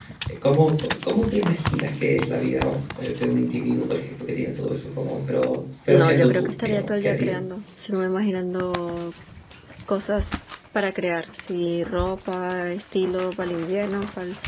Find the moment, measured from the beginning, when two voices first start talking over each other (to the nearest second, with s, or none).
6 s